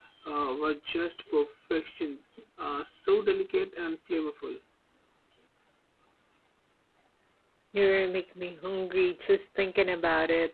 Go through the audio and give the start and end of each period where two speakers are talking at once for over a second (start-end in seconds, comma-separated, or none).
none